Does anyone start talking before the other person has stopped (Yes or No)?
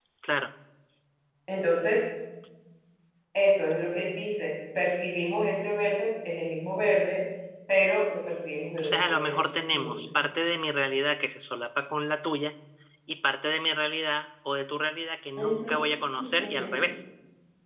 Yes